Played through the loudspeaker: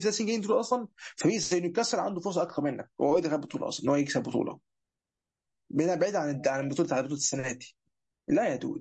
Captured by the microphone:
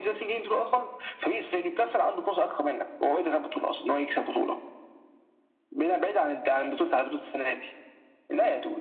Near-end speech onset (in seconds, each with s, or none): none